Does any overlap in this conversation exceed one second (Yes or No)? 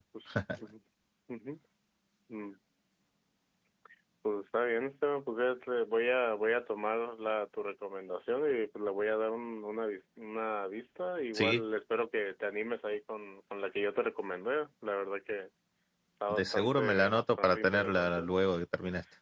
Yes